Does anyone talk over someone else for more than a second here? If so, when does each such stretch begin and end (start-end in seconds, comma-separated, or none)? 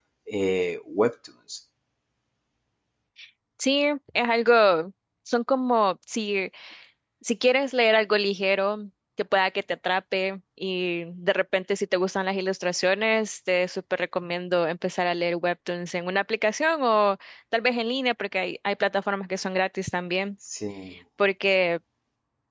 none